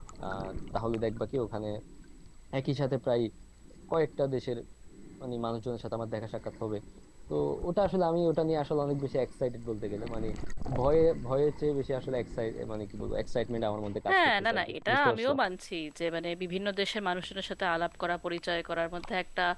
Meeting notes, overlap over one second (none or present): present